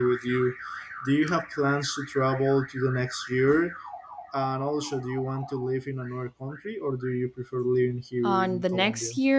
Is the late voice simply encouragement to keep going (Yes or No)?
No